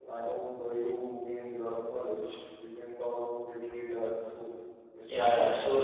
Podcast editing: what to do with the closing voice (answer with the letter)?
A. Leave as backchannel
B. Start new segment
B